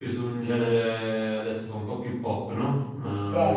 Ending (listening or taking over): taking over